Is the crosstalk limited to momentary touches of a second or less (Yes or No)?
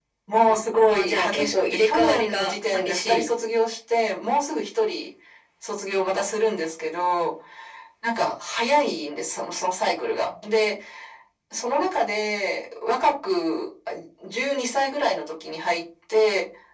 No